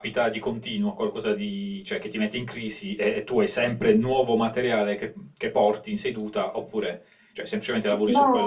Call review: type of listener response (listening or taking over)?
taking over